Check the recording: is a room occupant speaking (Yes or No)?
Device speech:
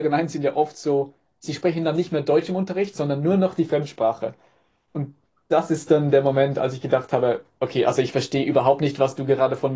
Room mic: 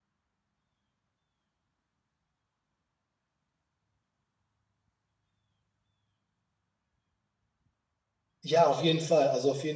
Yes